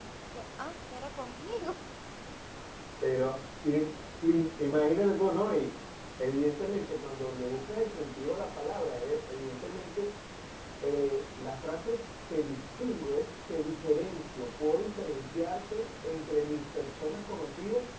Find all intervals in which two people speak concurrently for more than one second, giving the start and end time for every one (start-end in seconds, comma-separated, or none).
none